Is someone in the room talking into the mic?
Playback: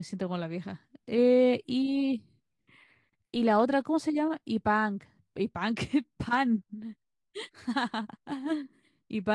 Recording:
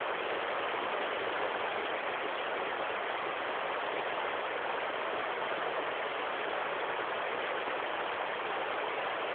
No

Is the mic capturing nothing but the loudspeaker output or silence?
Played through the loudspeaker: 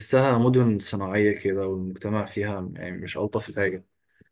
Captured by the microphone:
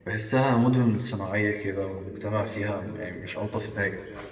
No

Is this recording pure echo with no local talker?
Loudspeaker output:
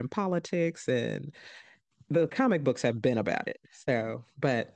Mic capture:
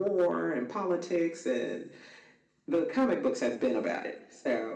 Yes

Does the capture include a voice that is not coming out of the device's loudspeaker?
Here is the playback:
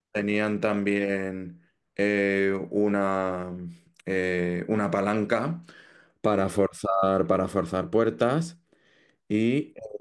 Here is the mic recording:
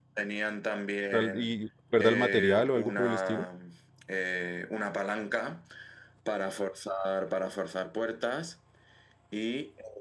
Yes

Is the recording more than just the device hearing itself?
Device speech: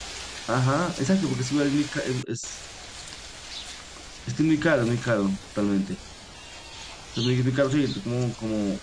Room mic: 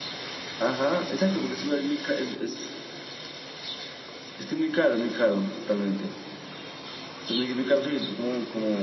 No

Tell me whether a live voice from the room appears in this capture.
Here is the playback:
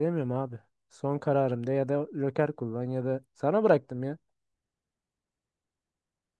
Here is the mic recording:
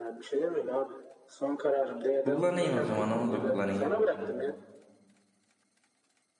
Yes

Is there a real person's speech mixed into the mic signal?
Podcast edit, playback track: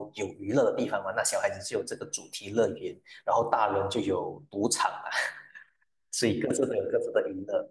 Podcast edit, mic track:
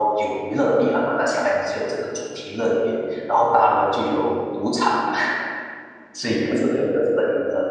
No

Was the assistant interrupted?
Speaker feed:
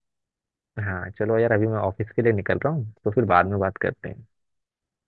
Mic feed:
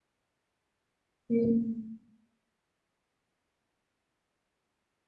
Yes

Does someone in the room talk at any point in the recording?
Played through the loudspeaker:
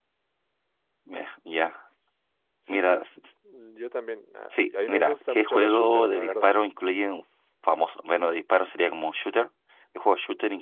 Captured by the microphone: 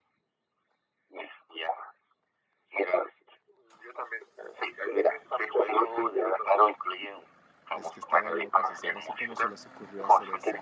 Yes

